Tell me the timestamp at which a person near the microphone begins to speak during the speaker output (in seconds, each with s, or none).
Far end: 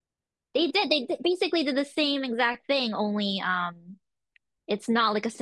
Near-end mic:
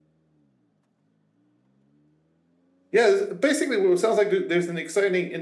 2.9 s